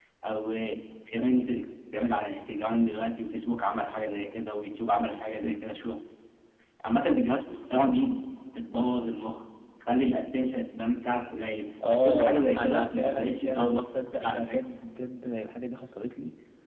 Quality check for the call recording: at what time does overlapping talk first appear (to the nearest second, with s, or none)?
12 s